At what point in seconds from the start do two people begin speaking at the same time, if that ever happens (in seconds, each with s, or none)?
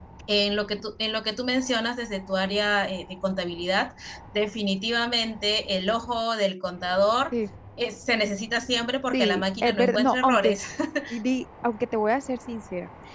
9.1 s